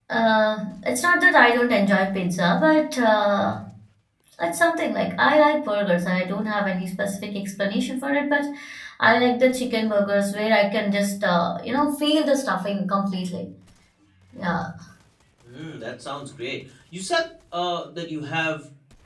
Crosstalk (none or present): none